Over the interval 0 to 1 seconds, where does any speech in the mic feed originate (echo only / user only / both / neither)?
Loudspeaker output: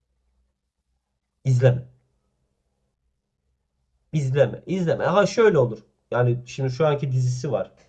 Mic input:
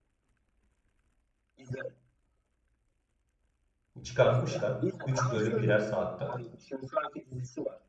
neither